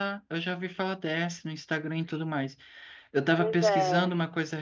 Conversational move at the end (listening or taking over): listening